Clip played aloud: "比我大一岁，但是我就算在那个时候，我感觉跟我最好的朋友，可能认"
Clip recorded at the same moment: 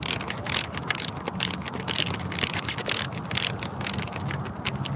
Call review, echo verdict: none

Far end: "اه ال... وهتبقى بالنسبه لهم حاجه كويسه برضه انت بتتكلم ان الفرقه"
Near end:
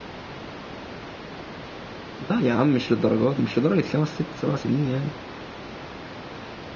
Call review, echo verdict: none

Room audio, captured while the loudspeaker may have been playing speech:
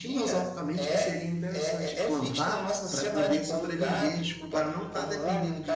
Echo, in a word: present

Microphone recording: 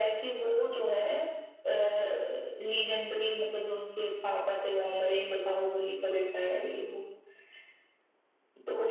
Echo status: present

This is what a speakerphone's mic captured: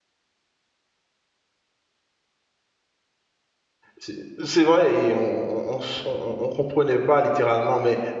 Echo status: none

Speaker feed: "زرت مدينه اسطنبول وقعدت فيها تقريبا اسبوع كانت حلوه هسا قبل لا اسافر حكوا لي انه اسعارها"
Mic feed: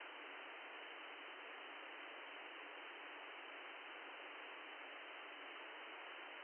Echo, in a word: none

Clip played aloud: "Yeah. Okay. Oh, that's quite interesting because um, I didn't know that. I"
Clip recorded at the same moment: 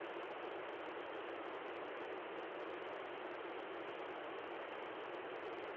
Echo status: none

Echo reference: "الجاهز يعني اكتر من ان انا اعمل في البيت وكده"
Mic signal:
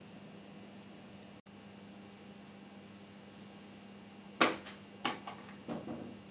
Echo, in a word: none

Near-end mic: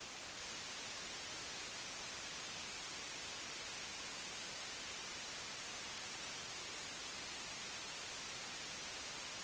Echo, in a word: none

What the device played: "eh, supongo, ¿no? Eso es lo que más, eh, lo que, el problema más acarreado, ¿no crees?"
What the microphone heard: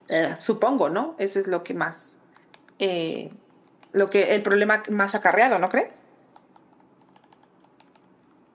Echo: present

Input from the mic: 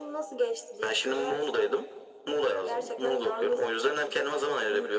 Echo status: present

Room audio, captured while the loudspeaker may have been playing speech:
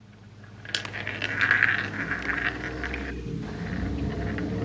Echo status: none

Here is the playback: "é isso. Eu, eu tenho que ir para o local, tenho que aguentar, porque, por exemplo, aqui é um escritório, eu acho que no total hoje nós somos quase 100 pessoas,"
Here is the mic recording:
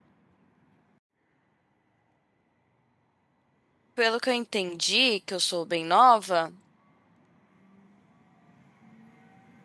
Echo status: none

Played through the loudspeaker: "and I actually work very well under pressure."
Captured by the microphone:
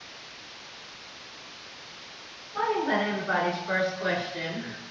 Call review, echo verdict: none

